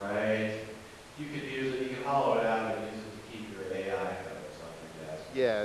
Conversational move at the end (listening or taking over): taking over